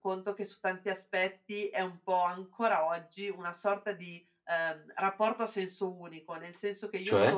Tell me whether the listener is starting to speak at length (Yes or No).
No